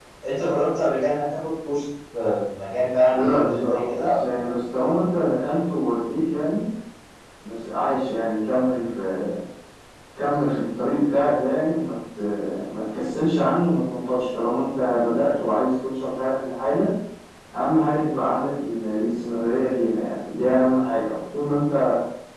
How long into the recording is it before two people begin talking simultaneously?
3.1 s

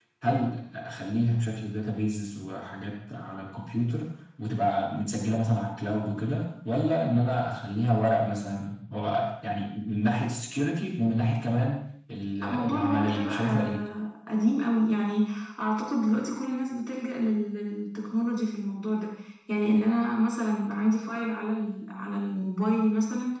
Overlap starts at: 12.3 s

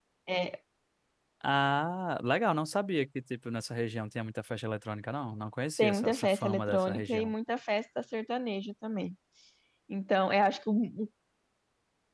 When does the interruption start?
5.8 s

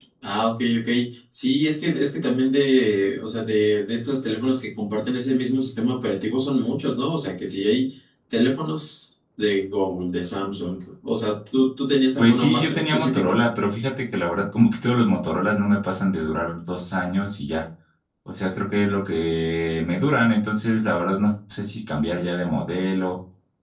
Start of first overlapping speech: 12.2 s

